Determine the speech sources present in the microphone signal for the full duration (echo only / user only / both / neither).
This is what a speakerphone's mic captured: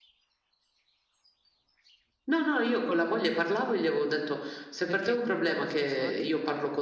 both